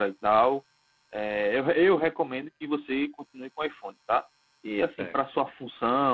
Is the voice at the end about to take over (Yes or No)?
No